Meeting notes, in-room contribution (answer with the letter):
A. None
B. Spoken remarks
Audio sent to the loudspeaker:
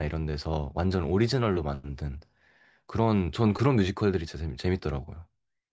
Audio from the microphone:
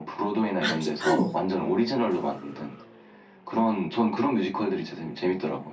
B